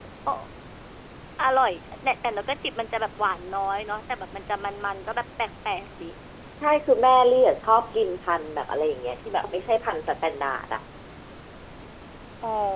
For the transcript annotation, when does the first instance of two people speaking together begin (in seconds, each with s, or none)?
none